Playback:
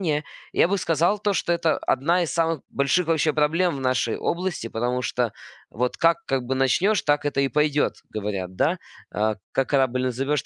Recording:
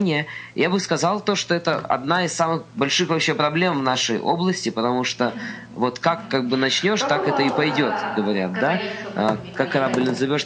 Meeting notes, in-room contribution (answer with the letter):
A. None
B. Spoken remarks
B